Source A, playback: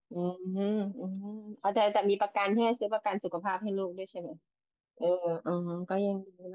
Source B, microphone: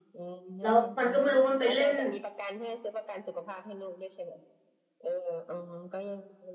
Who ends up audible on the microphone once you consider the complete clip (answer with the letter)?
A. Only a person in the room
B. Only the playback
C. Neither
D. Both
D